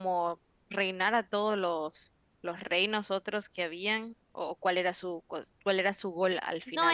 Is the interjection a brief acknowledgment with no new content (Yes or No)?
No